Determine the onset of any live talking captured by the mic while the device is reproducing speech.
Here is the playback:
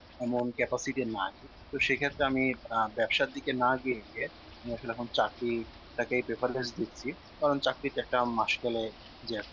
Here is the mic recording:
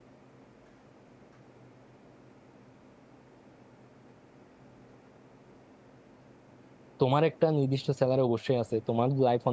7.0 s

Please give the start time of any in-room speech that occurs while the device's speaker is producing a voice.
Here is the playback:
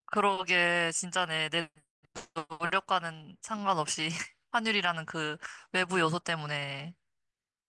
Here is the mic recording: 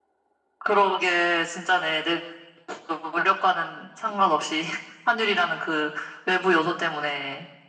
none

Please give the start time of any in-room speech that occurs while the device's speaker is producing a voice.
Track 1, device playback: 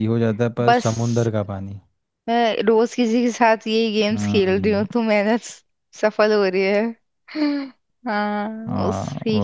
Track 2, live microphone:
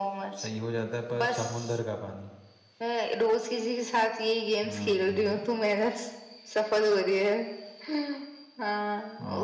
none

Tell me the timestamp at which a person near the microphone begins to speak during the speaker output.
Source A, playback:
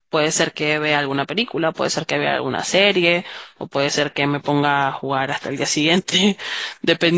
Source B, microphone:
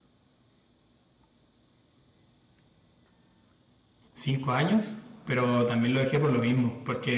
4.1 s

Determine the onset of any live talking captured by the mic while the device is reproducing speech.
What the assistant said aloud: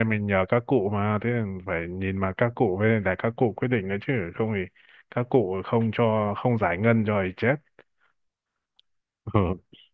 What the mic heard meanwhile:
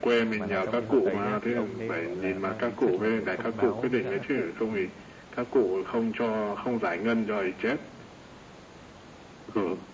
0.3 s

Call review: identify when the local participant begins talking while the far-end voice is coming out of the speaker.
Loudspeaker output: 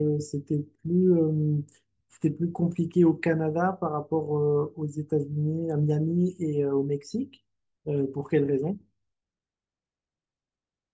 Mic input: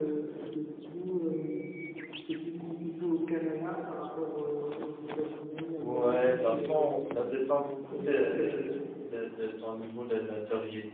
5.0 s

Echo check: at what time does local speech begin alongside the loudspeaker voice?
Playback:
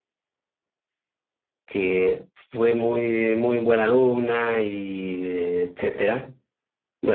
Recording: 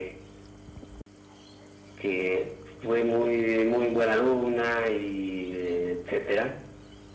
none

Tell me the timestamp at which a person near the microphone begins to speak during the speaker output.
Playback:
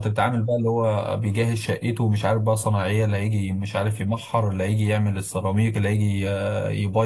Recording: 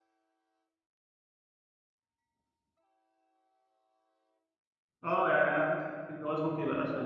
5.0 s

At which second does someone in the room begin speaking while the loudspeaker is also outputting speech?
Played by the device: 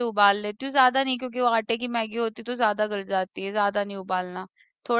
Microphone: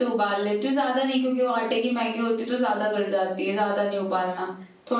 none

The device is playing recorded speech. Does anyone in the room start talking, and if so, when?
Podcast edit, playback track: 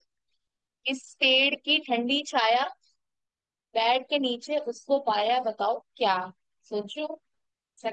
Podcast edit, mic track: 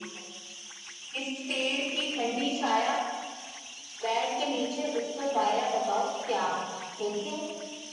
none

